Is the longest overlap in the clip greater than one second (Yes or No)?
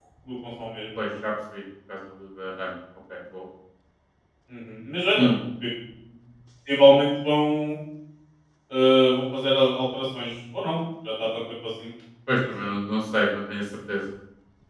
No